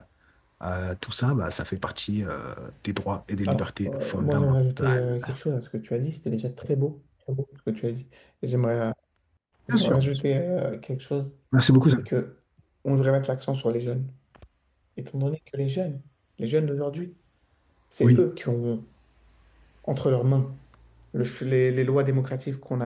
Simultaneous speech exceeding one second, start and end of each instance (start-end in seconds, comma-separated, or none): 3.5-5.2